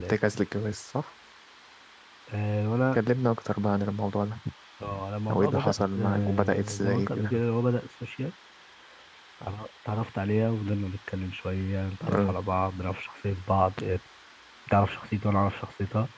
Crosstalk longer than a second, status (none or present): present